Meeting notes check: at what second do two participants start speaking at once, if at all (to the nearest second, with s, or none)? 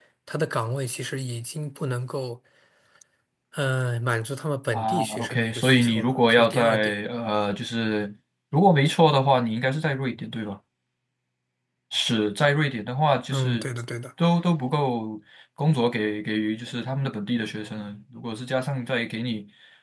5 s